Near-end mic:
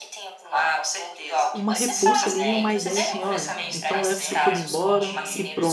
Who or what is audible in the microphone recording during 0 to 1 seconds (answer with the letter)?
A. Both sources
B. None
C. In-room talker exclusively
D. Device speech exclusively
D